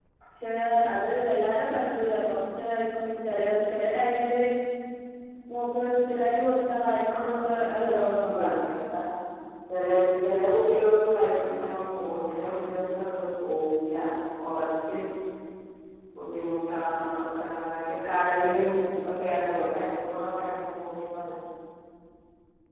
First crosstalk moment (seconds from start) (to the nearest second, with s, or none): 7 s